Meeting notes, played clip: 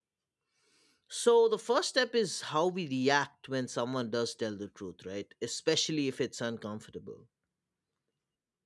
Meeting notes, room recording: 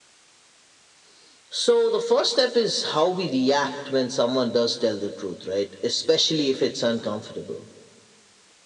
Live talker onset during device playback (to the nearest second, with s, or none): none